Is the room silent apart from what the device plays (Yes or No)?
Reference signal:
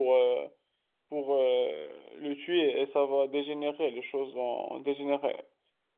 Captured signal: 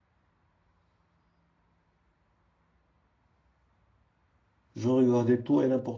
No